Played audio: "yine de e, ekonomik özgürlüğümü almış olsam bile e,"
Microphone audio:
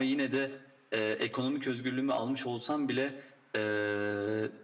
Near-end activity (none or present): none